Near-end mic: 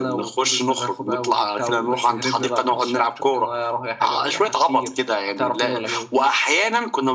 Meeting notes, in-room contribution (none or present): none